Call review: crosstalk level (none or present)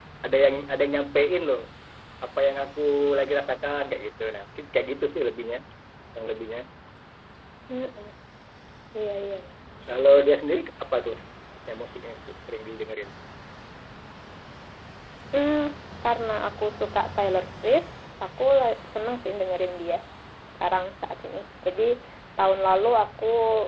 none